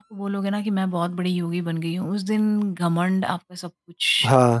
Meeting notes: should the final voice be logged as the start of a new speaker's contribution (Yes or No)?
Yes